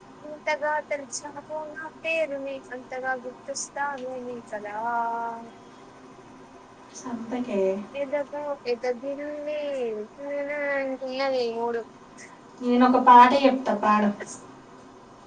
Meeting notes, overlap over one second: none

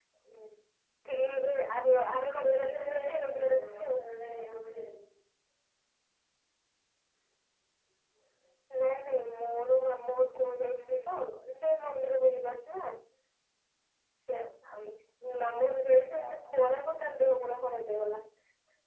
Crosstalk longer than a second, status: present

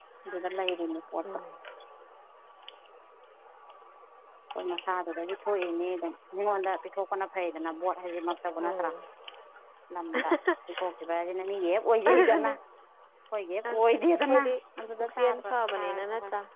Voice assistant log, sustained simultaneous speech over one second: present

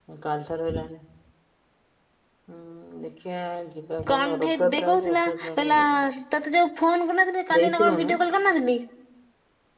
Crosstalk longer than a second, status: present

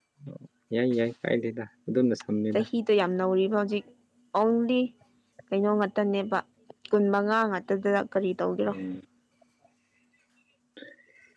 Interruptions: none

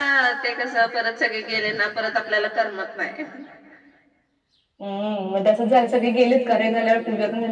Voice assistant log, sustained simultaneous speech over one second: none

